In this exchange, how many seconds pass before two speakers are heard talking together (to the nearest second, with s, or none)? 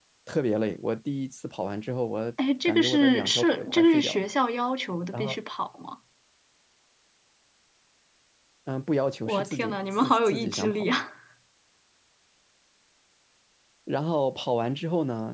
3 s